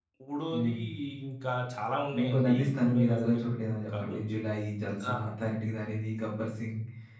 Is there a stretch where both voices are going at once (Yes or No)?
Yes